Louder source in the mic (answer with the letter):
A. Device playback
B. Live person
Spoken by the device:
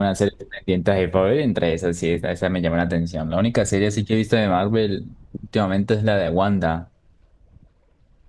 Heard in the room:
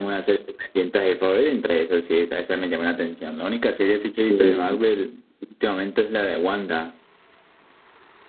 B